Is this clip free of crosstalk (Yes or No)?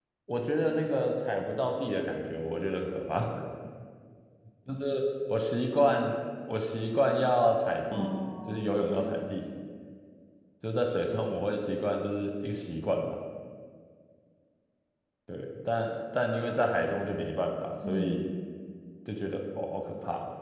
No